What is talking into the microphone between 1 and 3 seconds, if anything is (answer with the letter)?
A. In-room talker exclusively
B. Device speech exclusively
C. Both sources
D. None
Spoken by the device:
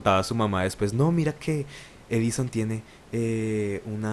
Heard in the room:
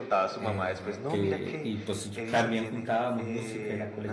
C